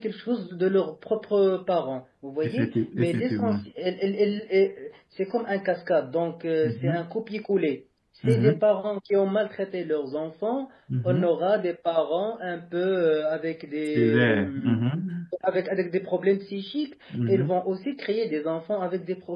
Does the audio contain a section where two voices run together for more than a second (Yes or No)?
Yes